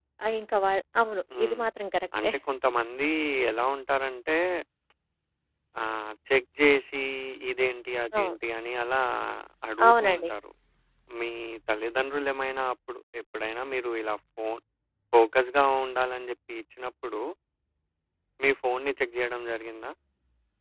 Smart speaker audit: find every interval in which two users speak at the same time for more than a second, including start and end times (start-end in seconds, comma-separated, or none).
none